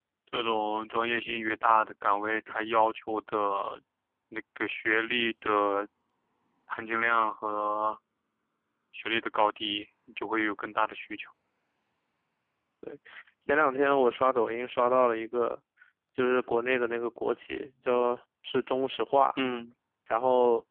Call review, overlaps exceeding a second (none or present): none